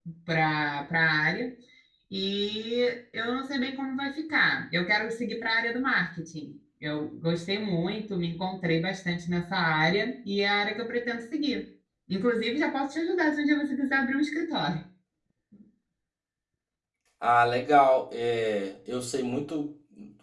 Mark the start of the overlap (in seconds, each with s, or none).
none